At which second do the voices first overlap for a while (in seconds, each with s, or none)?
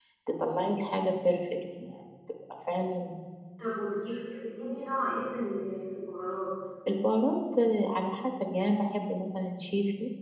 none